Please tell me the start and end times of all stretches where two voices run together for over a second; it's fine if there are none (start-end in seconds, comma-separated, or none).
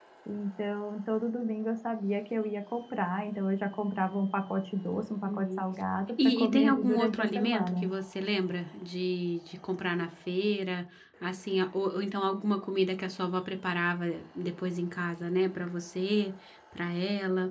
6.2-7.8